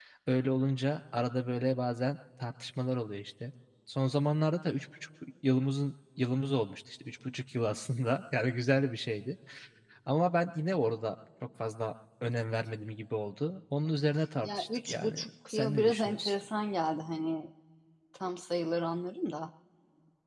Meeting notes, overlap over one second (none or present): present